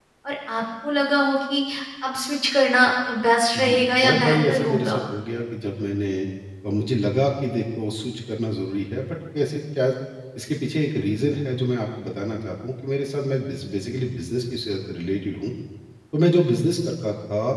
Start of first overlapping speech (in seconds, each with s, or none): 3.5 s